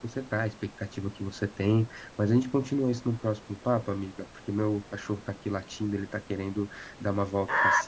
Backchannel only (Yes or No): No